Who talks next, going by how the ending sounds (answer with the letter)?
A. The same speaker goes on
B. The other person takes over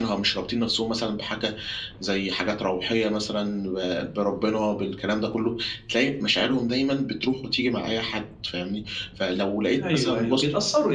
B